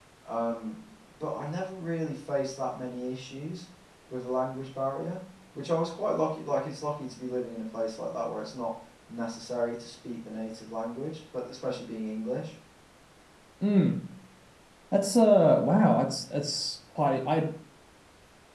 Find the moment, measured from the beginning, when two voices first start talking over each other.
none

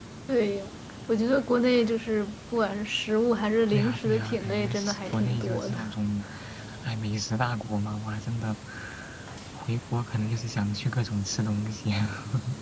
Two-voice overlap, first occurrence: 3.7 s

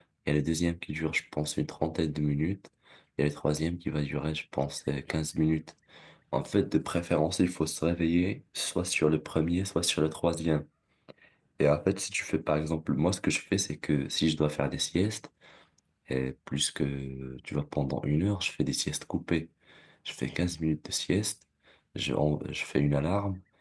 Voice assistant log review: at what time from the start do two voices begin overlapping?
none

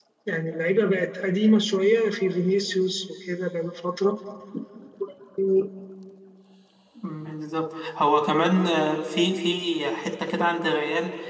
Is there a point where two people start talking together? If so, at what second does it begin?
none

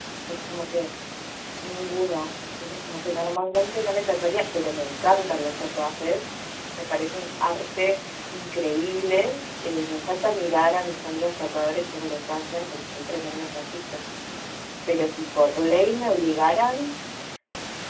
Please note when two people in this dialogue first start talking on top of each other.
none

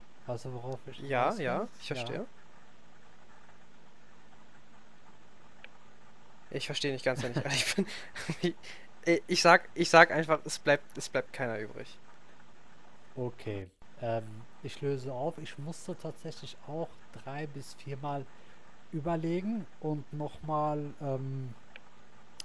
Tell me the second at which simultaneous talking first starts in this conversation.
1.0 s

